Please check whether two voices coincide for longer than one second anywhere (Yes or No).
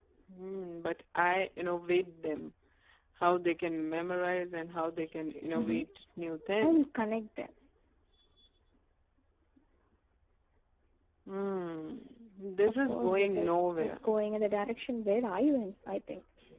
Yes